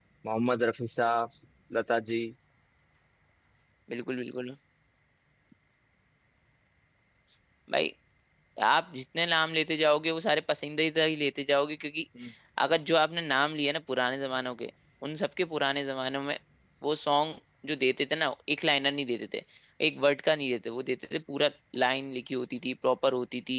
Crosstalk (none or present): none